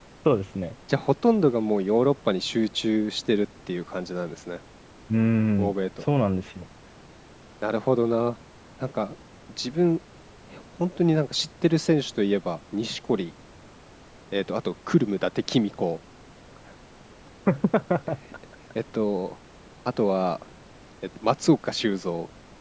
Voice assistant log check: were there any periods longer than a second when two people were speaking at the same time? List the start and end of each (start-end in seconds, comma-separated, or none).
none